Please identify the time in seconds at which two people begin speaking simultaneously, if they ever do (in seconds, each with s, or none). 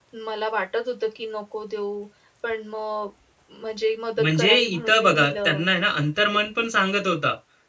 4.2 s